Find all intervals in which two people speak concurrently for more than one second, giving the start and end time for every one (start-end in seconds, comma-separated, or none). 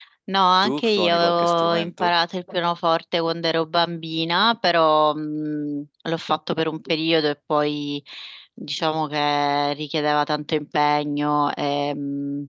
0.6-2.1